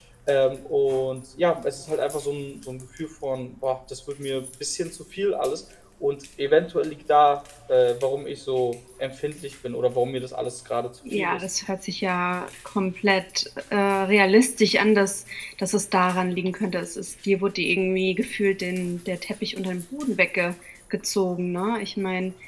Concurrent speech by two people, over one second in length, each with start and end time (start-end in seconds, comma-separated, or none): none